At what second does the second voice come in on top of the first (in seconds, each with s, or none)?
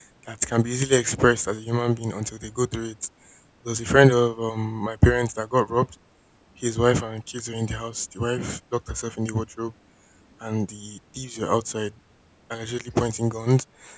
none